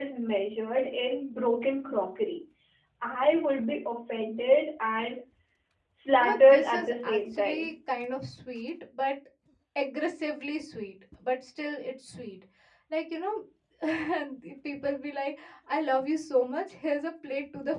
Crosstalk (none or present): present